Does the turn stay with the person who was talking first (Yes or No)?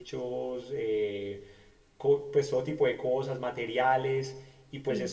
Yes